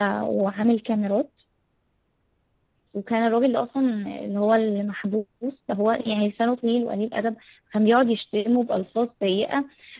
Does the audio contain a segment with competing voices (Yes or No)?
No